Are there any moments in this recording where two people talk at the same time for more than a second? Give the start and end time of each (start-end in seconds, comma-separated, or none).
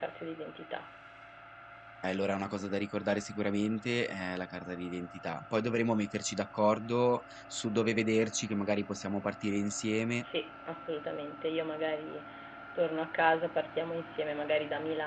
none